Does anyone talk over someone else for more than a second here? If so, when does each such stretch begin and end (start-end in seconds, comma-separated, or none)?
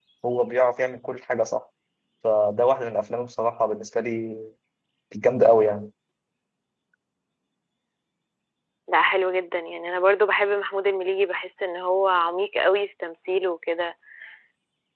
none